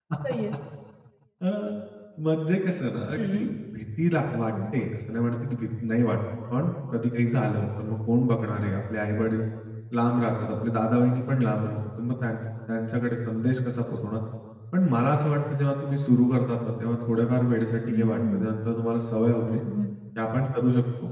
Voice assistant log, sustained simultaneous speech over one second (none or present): none